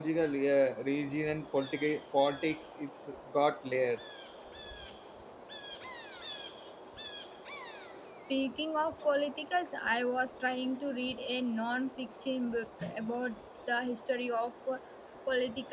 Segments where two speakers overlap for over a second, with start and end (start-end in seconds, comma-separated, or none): none